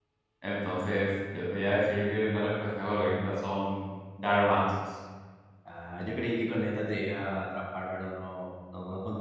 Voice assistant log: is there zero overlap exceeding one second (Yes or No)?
Yes